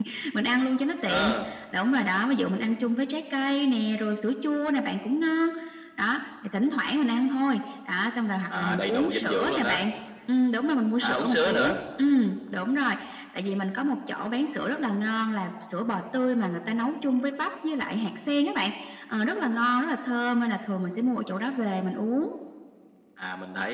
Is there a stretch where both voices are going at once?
Yes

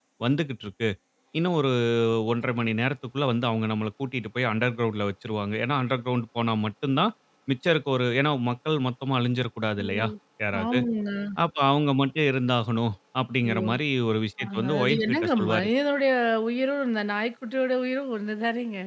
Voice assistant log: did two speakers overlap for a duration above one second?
Yes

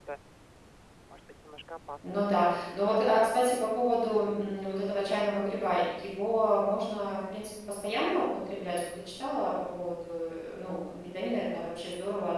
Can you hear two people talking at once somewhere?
Yes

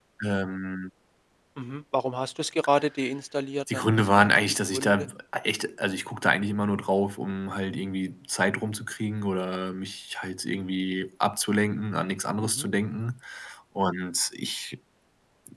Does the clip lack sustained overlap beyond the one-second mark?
No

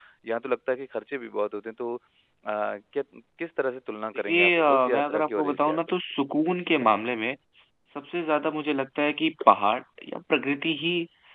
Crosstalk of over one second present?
Yes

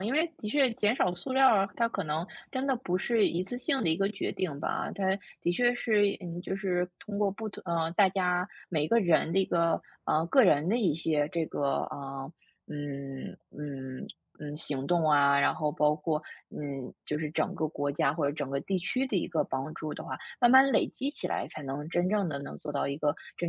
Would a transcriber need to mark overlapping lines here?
No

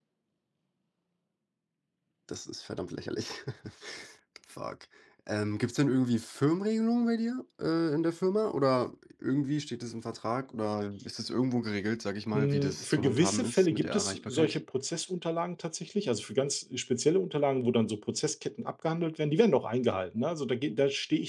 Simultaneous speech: Yes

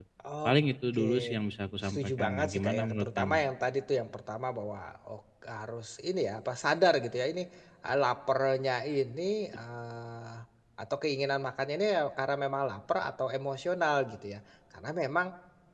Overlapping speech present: Yes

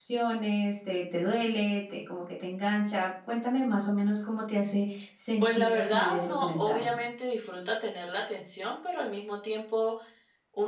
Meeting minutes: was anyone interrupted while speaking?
Yes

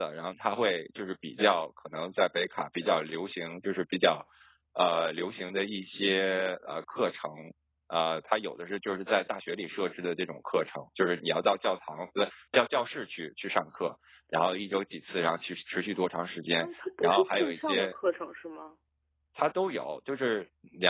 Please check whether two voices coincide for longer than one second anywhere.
Yes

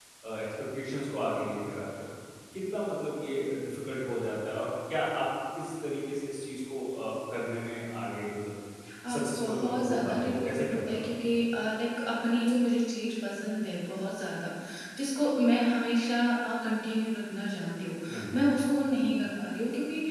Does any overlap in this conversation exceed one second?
Yes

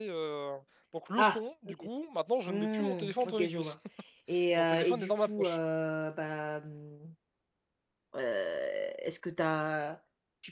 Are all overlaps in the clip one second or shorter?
No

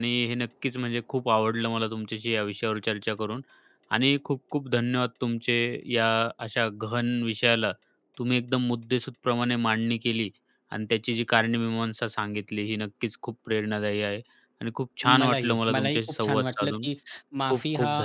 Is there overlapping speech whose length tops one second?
Yes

